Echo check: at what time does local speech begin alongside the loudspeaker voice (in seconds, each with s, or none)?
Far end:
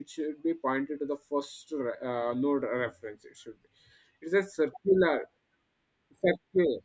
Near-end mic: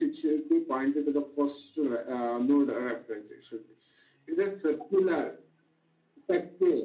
none